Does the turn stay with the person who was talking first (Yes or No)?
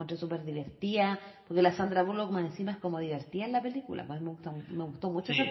No